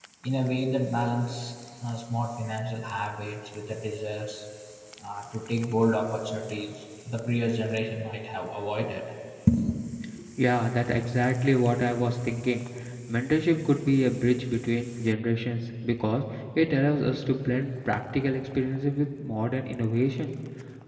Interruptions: none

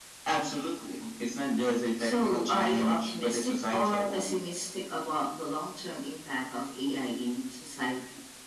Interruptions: present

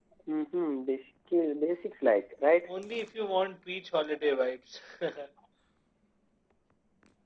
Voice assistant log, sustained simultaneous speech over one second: none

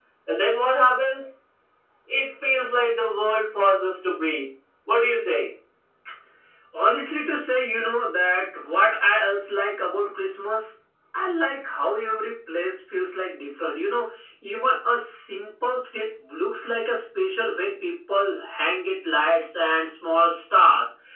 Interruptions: none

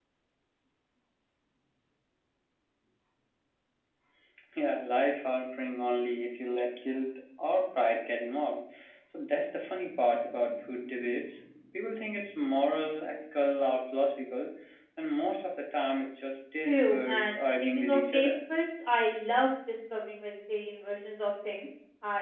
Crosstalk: present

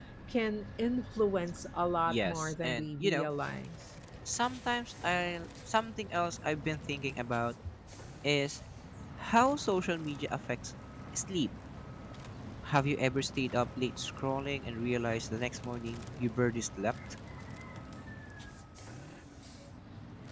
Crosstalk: present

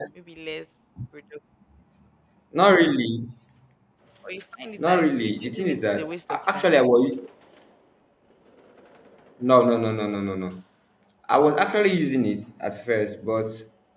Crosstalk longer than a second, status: present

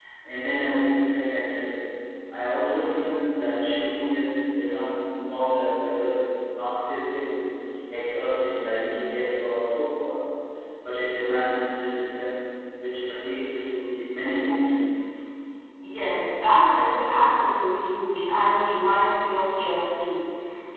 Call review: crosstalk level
none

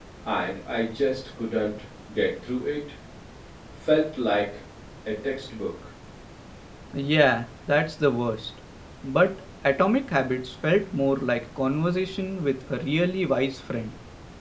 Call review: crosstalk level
none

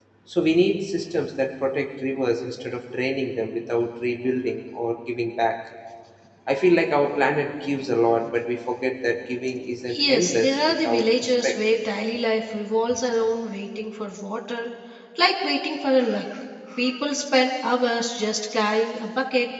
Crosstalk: present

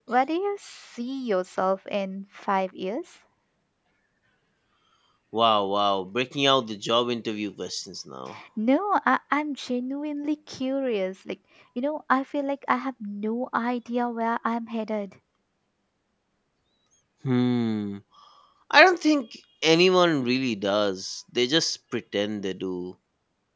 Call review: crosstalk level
none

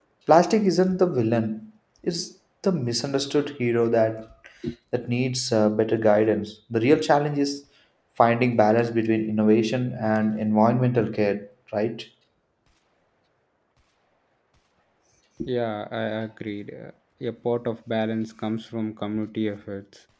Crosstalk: none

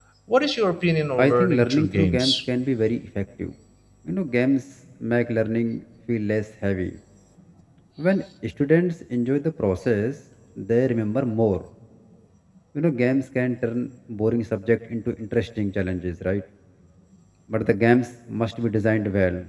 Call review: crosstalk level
present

